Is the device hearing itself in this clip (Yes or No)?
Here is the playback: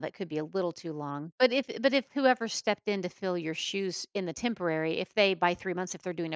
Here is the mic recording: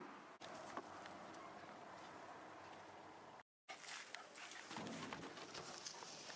No